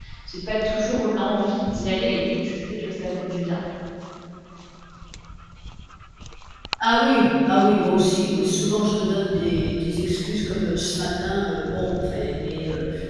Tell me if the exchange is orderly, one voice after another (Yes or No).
Yes